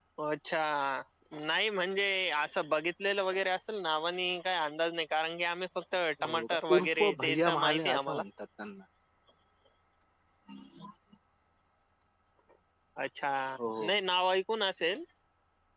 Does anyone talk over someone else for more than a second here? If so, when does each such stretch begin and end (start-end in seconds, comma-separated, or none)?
6.3-8.2